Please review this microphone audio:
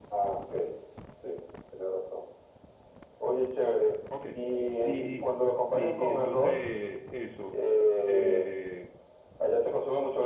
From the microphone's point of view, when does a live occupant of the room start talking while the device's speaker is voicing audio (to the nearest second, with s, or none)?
4 s